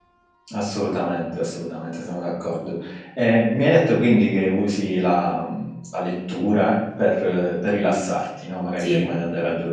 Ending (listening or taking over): listening